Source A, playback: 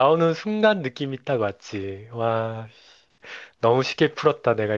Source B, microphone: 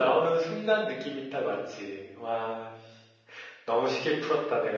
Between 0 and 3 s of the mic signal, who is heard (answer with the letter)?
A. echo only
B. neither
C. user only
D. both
A